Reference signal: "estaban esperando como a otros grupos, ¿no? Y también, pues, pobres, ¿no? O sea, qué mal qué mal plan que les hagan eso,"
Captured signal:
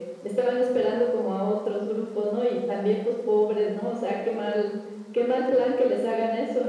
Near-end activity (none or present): none